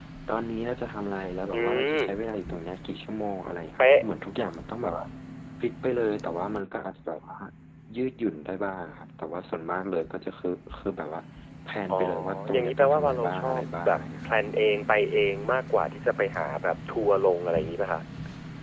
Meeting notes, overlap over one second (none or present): present